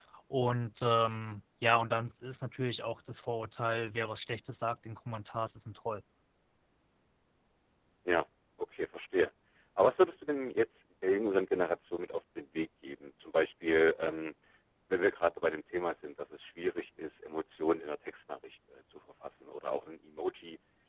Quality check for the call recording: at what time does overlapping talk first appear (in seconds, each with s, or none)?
none